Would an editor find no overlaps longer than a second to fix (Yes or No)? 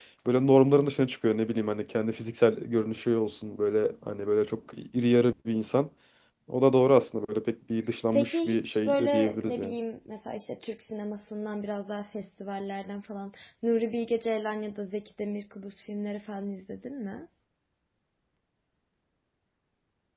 No